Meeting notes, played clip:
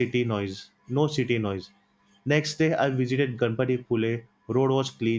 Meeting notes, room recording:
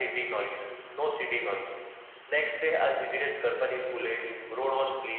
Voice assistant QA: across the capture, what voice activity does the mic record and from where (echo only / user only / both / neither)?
echo only